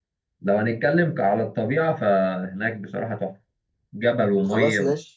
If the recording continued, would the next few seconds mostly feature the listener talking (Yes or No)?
No